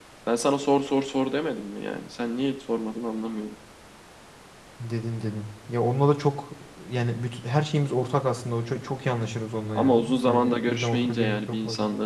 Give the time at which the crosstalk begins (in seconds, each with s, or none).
9.8 s